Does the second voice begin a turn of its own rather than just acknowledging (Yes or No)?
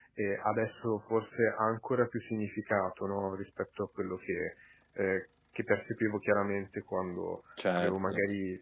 No